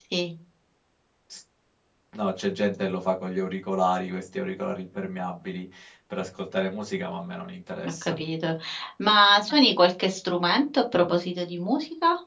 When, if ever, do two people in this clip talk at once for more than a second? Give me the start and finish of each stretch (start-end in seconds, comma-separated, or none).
none